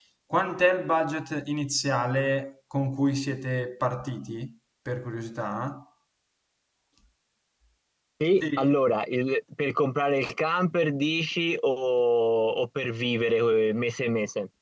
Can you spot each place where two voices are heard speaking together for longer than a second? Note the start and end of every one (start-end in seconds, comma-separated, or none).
none